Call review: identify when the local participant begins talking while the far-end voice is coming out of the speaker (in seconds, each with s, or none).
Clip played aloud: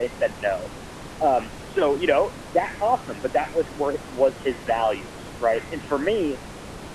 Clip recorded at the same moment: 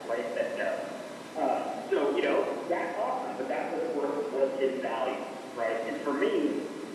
none